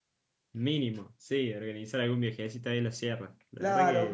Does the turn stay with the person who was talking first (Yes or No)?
No